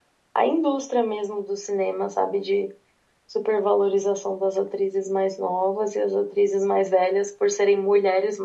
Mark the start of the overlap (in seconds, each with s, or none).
none